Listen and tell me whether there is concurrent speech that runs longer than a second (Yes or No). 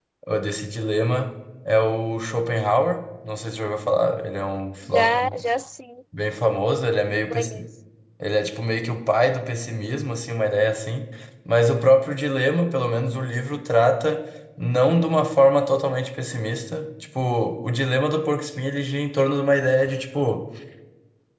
No